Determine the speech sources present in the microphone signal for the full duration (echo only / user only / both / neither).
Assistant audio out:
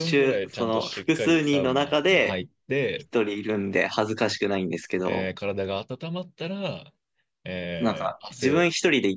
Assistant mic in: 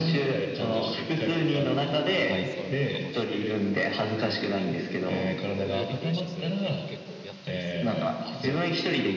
both